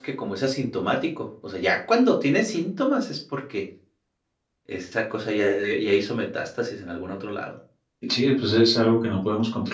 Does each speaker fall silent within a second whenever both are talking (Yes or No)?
Yes